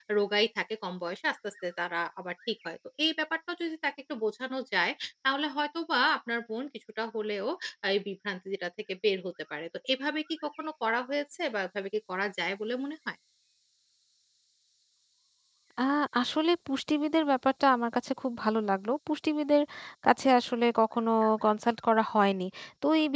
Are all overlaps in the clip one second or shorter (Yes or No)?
Yes